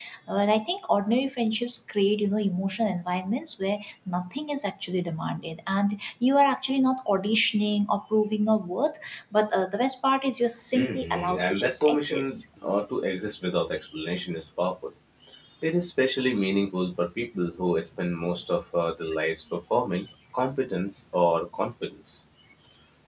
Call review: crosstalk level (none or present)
present